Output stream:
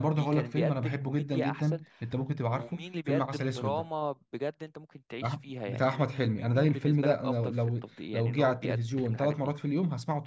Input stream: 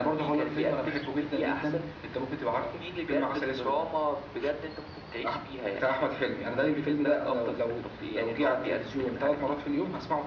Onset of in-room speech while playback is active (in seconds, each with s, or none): none